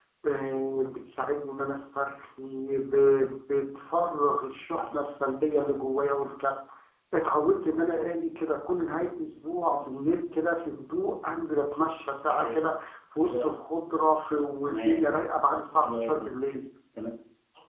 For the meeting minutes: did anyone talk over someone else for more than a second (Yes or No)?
No